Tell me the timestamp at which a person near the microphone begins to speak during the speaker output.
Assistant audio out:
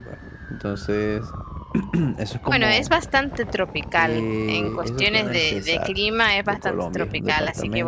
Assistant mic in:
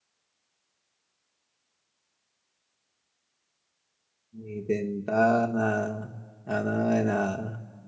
4 s

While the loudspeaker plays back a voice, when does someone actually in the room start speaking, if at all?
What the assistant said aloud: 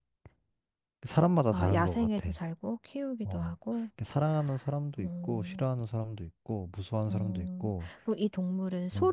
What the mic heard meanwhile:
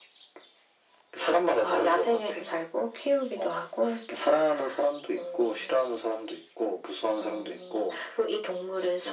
none

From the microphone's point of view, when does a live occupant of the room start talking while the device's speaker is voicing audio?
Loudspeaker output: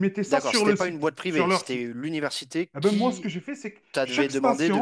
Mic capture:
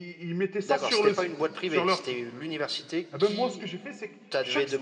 none

